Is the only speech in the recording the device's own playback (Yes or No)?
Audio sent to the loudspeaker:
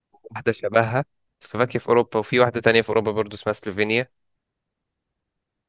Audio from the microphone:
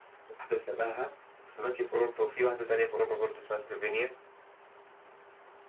Yes